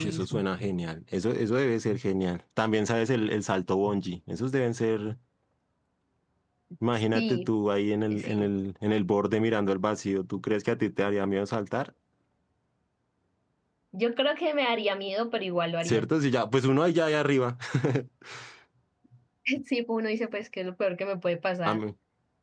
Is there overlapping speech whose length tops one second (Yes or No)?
No